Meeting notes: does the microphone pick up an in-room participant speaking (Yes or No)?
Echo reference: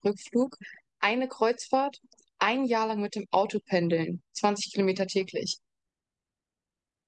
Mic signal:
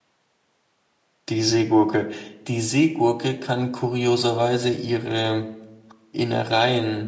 Yes